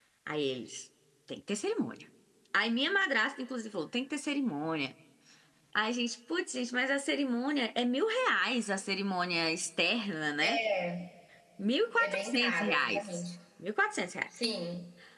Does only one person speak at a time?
No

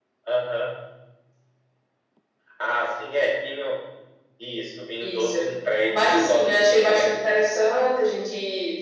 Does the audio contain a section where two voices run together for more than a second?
Yes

